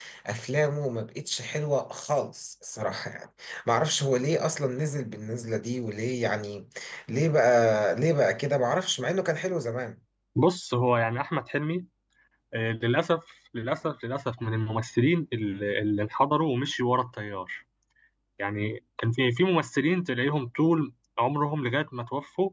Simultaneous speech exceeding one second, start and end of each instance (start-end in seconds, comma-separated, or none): none